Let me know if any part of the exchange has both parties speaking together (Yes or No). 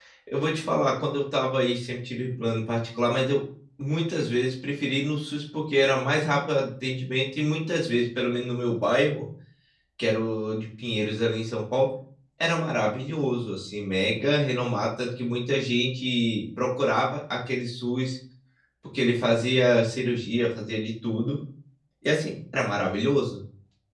No